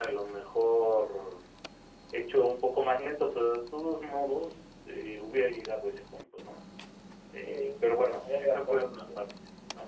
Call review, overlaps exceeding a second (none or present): present